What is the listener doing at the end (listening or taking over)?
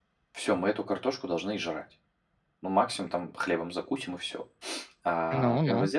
listening